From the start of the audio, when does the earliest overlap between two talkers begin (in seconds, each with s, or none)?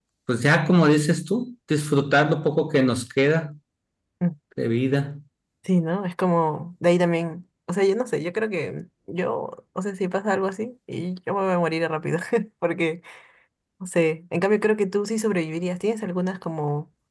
none